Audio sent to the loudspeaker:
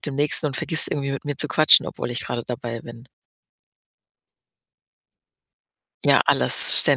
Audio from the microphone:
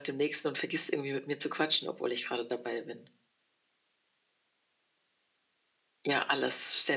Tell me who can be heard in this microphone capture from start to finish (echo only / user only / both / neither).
echo only